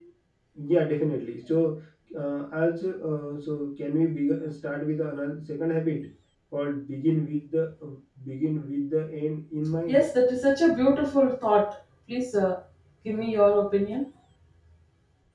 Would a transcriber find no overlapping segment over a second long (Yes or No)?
Yes